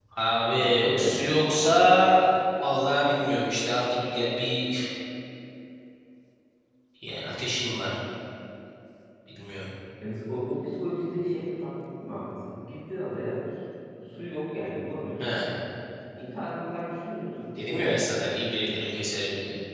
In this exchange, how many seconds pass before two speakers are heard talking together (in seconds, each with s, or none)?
0.6 s